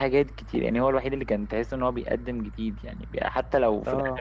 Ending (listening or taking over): listening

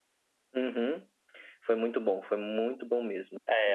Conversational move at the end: taking over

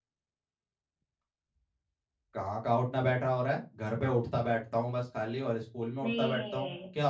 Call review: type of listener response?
taking over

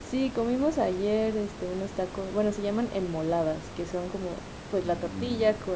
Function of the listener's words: listening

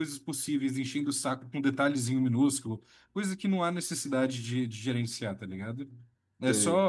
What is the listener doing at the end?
listening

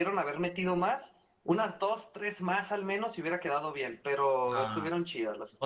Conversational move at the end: taking over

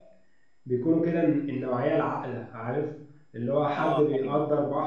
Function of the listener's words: listening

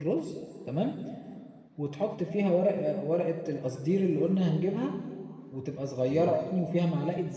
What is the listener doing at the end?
listening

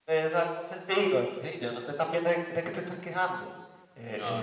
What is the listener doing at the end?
listening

